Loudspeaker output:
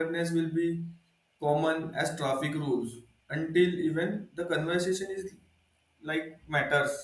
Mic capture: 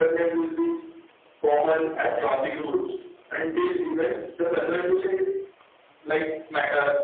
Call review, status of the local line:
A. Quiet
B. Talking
A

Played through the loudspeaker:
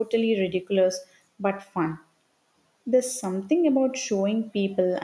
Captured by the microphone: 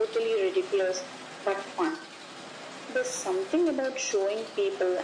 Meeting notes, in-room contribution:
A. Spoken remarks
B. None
B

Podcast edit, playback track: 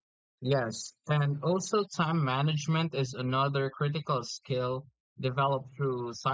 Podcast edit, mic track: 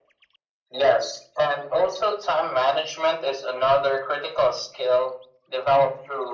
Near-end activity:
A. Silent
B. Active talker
A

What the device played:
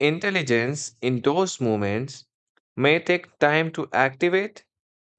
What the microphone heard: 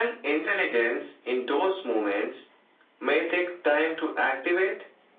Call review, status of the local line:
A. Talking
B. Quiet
B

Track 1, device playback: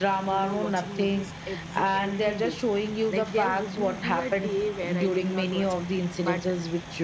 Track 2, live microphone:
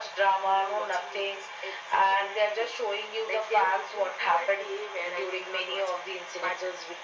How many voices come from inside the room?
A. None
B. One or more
A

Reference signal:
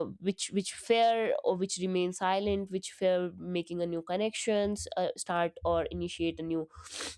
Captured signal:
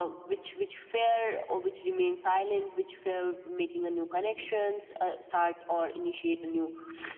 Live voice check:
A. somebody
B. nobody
B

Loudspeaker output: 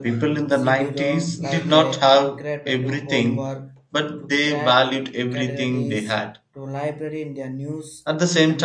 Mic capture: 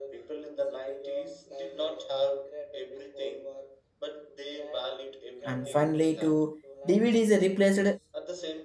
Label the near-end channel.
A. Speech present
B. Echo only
A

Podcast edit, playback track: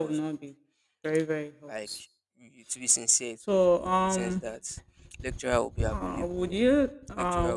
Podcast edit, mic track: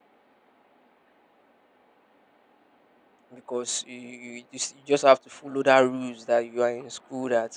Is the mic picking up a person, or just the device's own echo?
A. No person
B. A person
B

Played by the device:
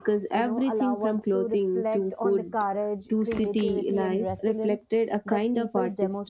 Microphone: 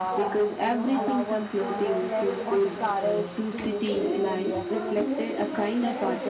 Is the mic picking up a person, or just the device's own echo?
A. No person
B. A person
B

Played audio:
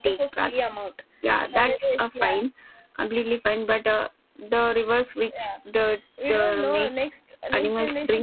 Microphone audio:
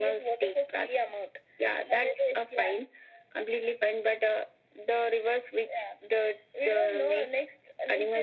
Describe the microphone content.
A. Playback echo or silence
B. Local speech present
A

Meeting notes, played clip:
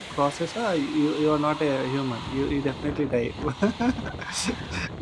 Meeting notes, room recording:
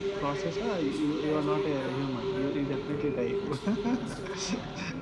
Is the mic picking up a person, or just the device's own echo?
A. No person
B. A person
B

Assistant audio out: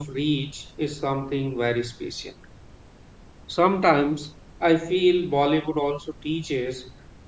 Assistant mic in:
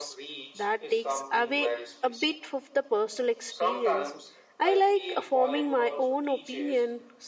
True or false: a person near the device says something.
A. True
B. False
A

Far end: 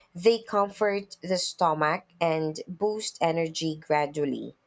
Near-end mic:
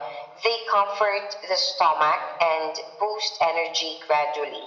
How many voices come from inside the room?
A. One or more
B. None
B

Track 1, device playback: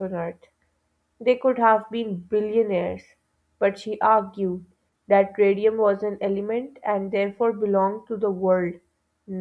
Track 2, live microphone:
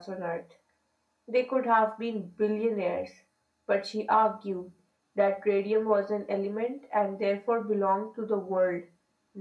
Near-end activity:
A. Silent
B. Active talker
A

